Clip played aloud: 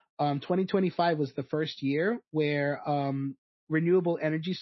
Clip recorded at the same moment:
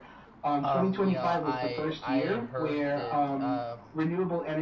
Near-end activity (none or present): present